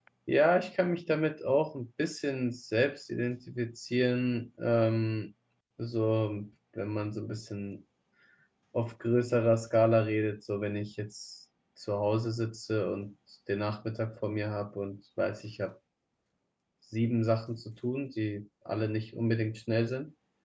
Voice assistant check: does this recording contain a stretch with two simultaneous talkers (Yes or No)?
No